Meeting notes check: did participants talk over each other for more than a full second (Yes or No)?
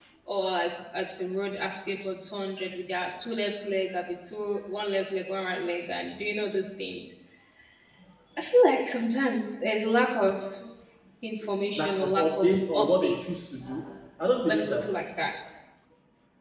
Yes